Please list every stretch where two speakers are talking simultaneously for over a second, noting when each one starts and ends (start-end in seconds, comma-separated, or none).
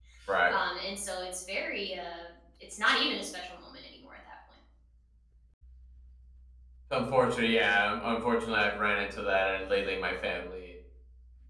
none